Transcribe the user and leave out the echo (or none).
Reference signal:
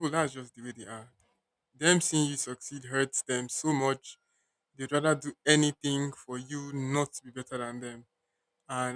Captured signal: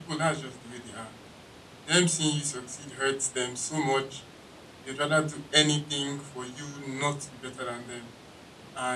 none